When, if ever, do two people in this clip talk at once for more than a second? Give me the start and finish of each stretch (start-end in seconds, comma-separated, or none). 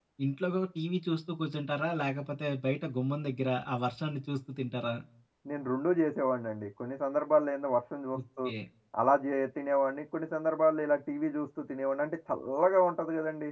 none